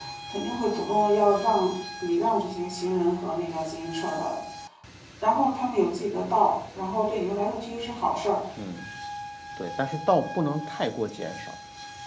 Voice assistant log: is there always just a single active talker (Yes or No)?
Yes